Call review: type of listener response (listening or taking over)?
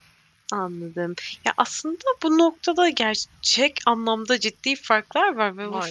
listening